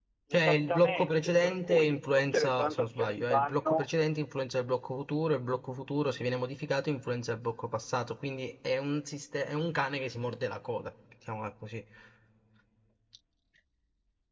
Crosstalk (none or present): present